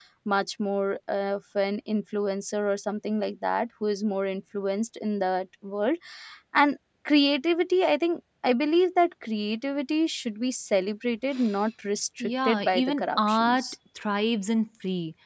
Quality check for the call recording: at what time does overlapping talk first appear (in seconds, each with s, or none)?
12.2 s